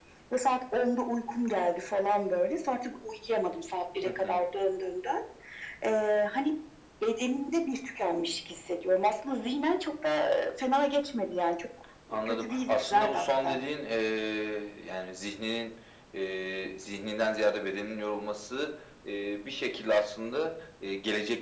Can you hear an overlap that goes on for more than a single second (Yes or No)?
Yes